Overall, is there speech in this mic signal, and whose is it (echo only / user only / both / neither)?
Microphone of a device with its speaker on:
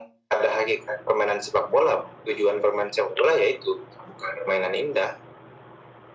echo only